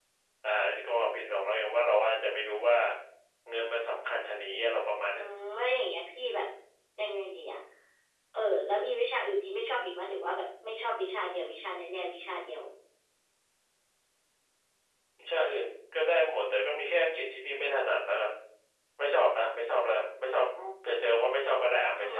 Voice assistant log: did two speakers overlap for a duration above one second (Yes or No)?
No